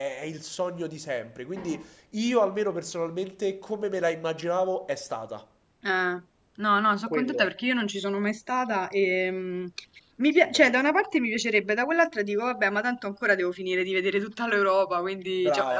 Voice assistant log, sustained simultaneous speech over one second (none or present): none